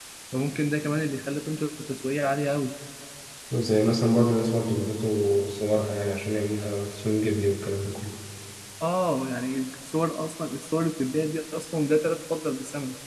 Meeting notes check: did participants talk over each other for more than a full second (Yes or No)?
No